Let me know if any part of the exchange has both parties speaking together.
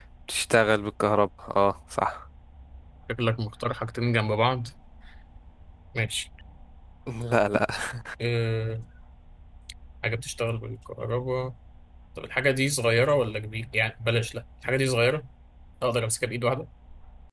No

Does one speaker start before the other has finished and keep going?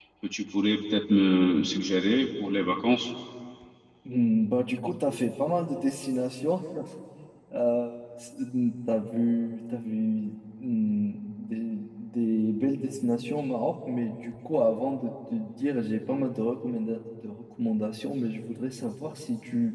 No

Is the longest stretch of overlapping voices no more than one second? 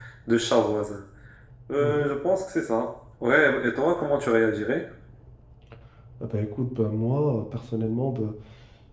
Yes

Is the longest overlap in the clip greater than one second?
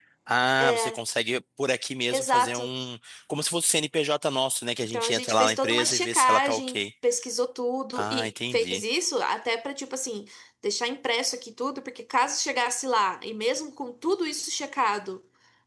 Yes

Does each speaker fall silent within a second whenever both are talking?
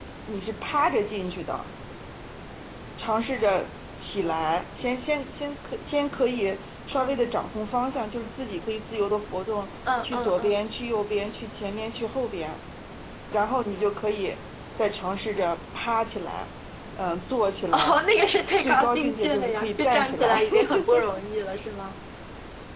No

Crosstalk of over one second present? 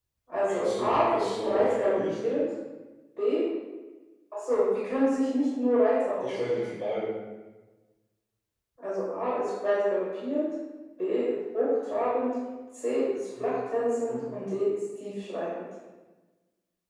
Yes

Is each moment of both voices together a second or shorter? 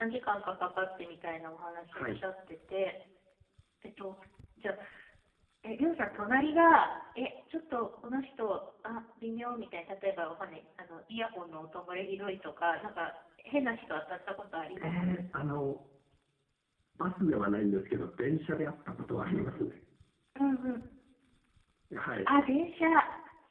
Yes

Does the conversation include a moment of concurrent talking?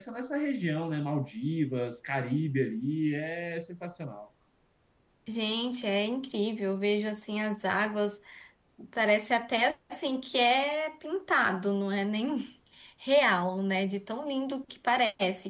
No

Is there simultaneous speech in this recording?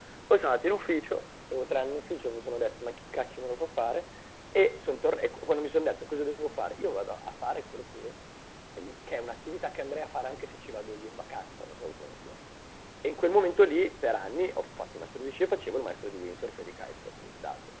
No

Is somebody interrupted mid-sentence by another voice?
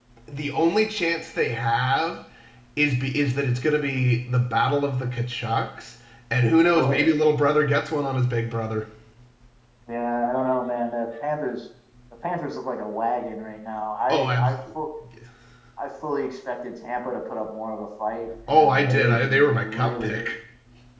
Yes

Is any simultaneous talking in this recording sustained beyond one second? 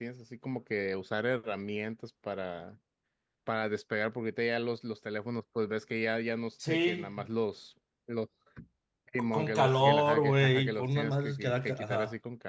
Yes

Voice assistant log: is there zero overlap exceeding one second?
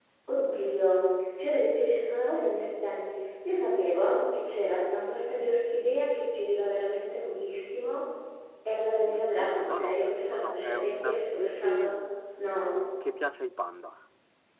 No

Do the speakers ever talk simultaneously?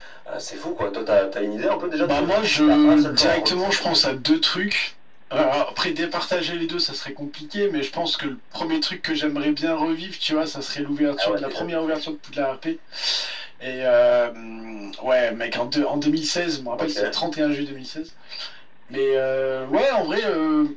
Yes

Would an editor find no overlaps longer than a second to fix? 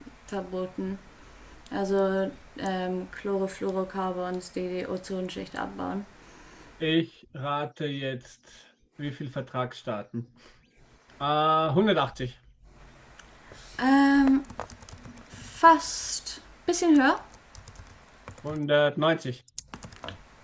Yes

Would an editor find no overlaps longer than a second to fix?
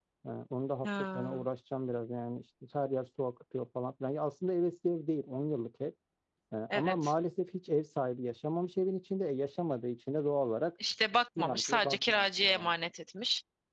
No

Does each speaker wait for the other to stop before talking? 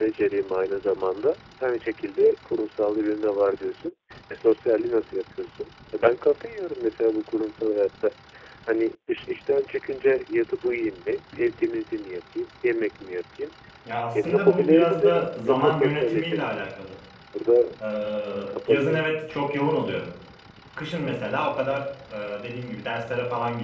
No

